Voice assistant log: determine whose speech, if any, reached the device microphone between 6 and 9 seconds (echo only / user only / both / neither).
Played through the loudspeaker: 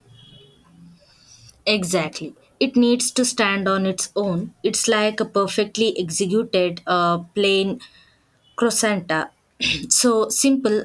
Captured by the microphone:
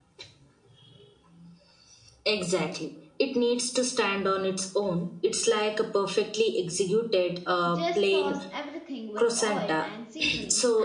both